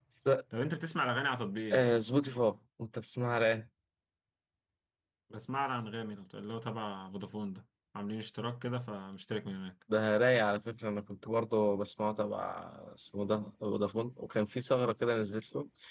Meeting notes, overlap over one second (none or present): none